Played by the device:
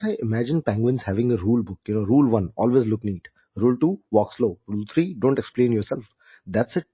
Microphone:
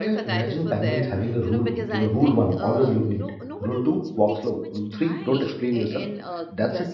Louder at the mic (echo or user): echo